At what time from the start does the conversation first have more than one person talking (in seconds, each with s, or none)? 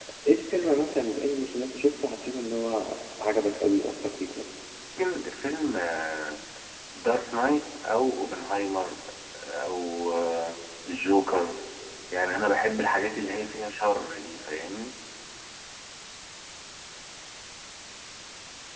none